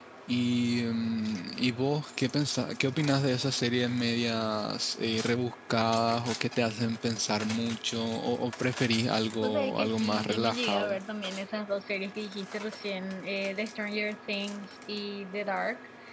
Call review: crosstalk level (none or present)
present